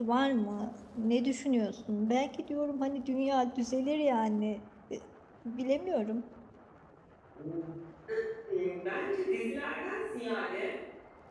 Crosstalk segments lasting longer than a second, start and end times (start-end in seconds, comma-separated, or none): none